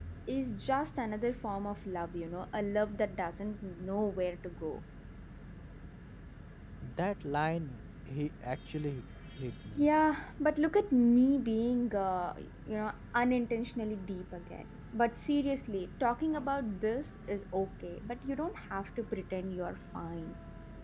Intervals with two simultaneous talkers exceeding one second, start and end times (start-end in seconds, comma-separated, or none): none